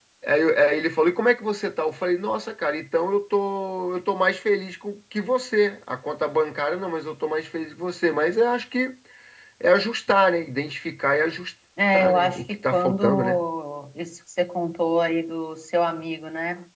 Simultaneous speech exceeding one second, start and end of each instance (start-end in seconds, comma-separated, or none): 11.9-13.4